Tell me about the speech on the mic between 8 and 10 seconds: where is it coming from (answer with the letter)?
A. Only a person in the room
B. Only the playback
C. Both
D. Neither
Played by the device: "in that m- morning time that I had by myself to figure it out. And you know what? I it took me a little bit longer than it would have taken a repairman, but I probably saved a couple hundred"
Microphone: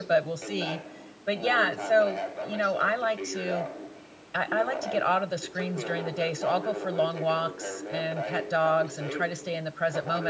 C